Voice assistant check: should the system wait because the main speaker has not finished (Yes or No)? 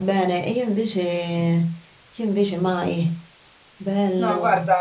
No